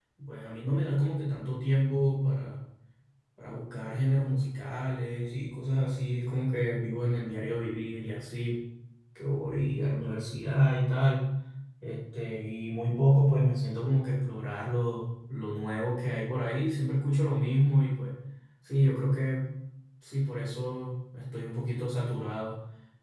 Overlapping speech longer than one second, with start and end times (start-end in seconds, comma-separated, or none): none